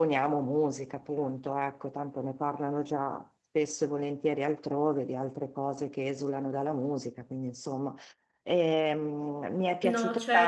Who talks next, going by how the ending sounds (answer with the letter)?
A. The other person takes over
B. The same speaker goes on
B